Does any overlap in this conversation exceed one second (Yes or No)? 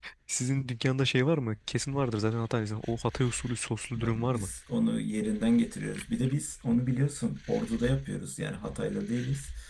No